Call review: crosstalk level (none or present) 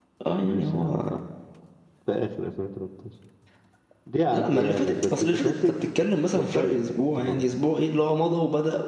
present